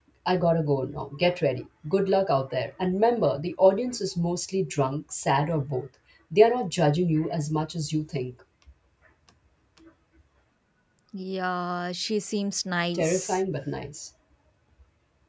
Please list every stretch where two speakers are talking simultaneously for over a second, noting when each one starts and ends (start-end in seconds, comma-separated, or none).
none